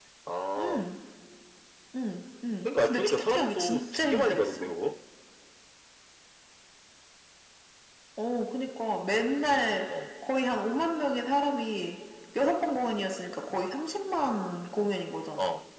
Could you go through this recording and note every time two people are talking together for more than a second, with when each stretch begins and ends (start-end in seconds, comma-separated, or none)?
2.6-4.7